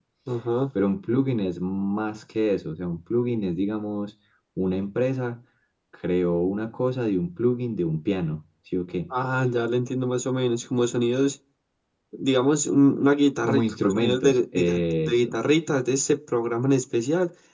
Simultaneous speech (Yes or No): Yes